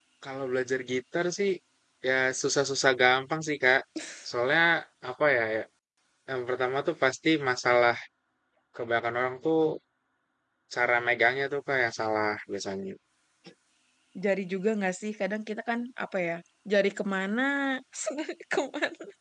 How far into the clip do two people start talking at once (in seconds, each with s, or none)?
none